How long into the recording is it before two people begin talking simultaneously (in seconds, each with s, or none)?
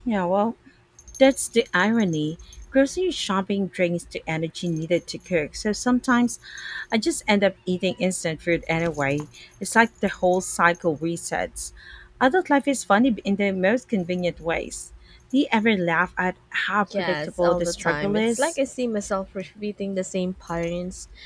16.8 s